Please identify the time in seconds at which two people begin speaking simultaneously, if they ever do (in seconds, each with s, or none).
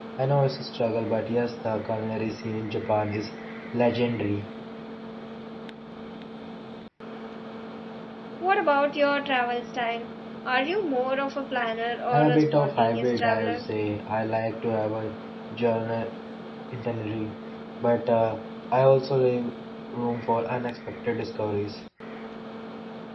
12.1 s